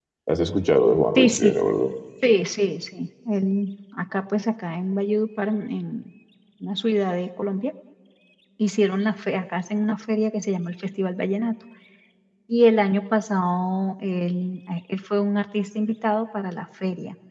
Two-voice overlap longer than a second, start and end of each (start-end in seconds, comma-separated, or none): none